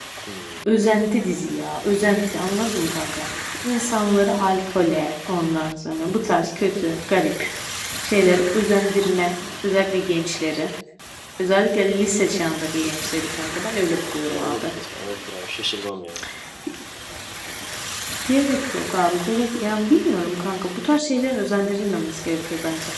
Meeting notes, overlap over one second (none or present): none